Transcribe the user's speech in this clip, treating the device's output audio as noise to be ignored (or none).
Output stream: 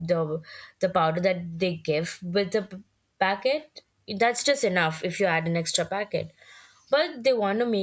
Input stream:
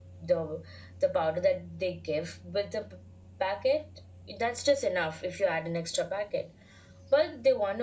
none